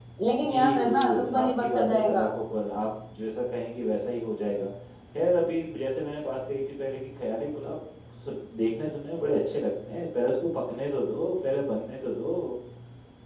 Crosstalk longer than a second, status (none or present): present